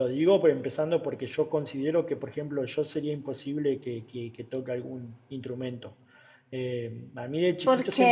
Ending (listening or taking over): listening